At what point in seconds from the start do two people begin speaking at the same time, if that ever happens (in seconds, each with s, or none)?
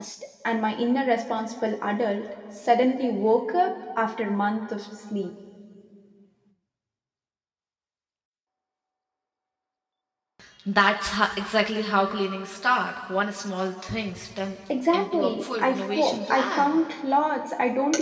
14.7 s